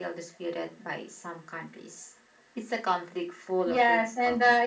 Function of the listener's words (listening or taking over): taking over